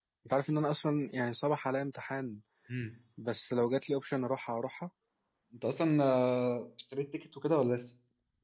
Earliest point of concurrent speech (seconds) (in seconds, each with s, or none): none